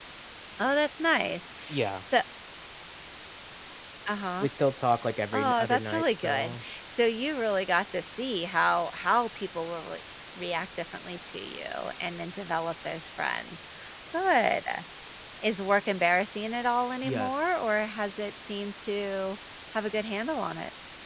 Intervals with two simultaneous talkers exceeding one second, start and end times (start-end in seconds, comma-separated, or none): 5.3-6.6